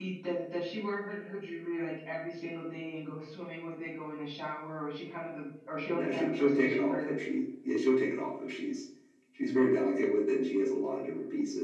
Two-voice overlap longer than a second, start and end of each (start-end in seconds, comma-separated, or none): 5.9-7.2